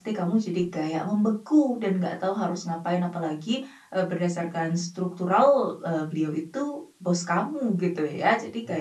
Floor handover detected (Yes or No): No